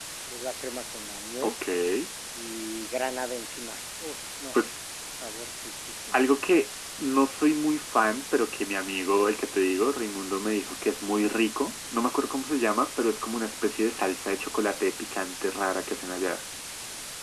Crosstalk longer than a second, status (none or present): none